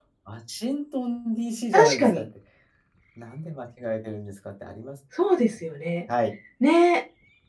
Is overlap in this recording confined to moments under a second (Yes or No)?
Yes